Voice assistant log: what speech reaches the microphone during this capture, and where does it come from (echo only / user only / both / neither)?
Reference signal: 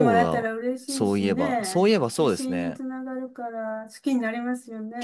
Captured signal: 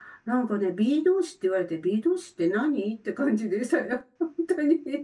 user only